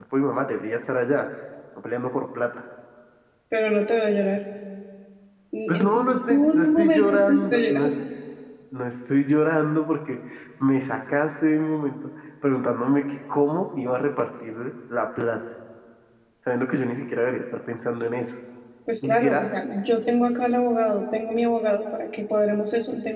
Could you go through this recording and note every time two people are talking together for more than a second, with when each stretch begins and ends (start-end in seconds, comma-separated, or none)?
6.3-7.9